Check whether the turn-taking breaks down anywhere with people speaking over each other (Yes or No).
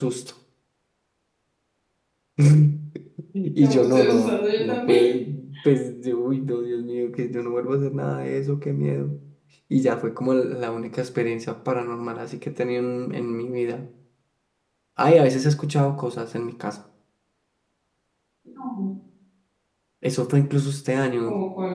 Yes